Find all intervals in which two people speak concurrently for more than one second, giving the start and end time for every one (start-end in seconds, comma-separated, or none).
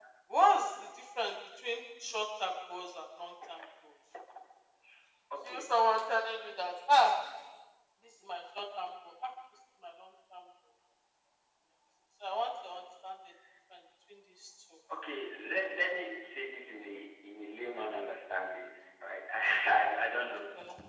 none